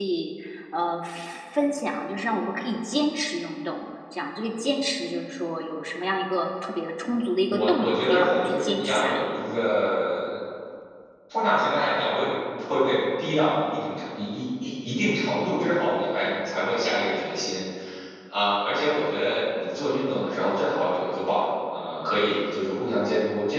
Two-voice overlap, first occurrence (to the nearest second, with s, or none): 7 s